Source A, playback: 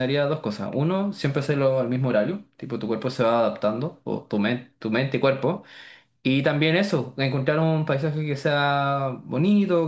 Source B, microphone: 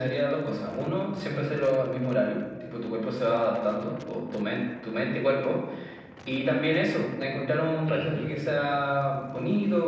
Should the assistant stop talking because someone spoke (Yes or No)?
Yes